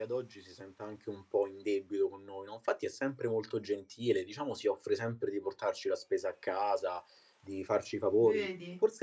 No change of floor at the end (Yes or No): Yes